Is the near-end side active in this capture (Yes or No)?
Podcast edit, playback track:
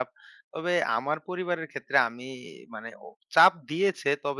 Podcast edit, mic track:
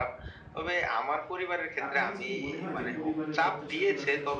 Yes